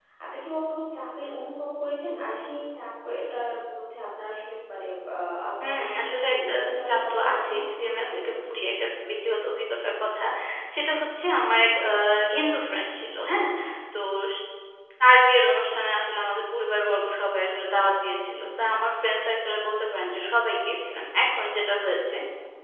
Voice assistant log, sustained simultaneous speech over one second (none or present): present